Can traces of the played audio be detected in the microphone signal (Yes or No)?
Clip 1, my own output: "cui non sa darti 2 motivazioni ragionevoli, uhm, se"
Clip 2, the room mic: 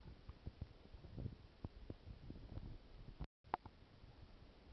No